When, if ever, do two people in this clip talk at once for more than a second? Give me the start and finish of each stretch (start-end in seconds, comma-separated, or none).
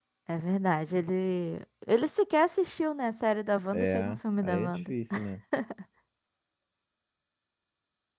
3.7-4.9